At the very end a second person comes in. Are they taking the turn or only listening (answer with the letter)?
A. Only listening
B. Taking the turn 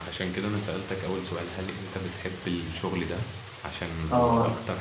B